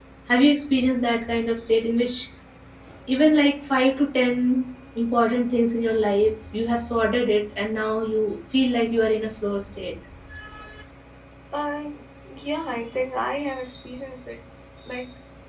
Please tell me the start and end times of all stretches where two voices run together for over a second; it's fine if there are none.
none

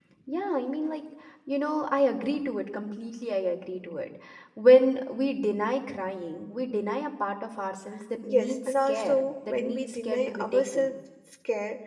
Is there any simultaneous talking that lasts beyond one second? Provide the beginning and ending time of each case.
8.3-11.0

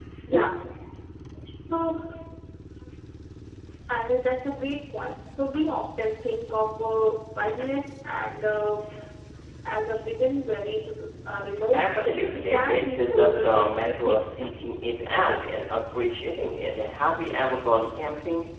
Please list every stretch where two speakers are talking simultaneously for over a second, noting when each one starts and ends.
11.7-14.2

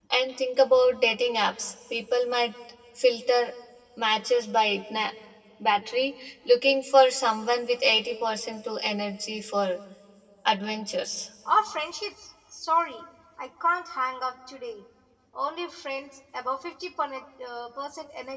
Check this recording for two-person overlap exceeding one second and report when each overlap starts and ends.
none

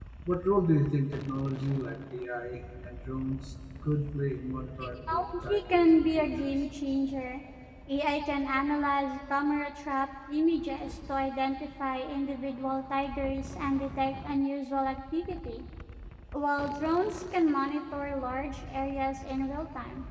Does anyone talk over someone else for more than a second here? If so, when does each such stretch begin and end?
5.1-6.5

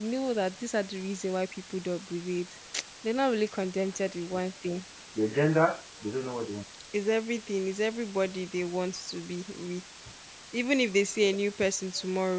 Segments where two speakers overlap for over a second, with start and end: none

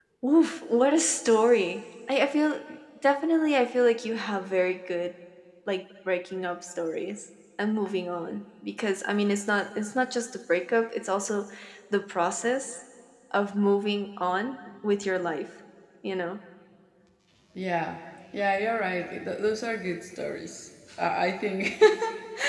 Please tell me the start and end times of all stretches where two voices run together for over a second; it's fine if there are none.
none

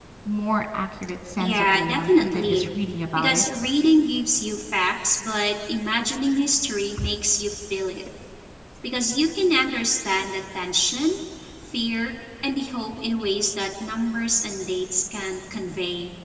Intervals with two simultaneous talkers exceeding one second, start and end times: 1.4-2.7

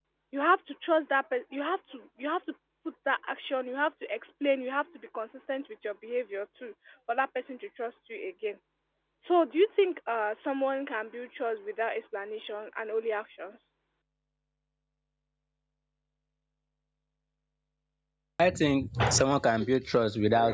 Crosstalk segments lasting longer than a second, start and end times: none

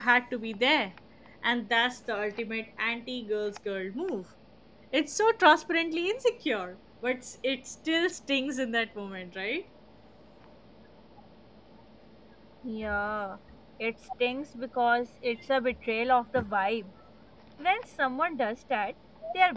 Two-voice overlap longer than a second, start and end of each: none

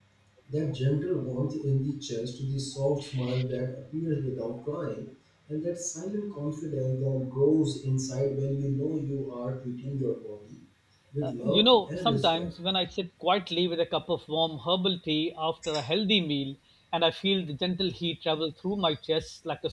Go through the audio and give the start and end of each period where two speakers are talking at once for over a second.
11.2-12.5

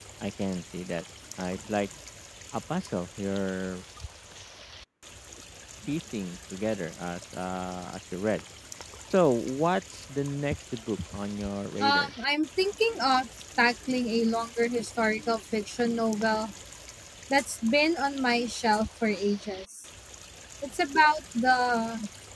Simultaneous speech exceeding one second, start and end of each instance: none

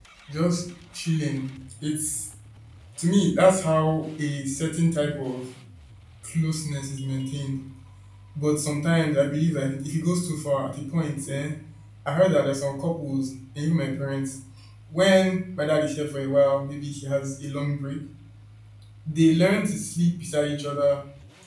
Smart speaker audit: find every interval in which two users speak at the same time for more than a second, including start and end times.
none

